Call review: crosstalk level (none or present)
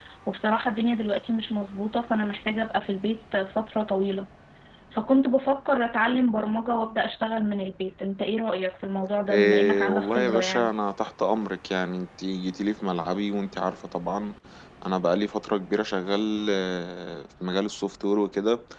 present